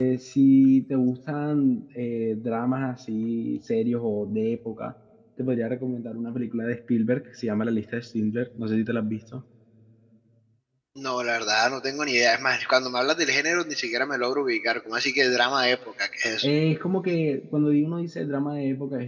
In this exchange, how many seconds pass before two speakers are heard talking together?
none

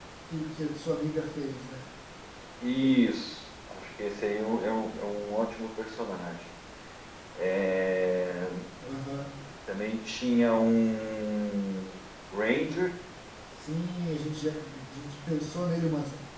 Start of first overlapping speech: none

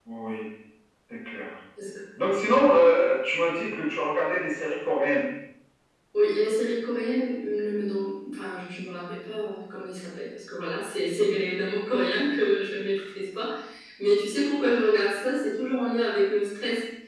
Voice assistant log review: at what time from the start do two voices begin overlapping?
none

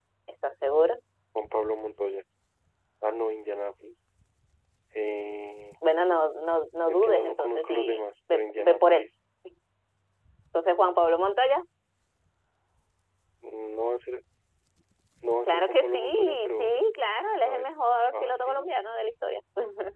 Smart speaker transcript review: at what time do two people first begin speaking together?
6.9 s

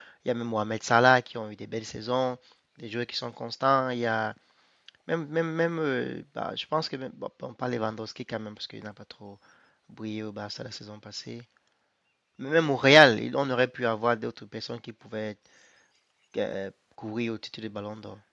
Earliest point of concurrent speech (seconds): none

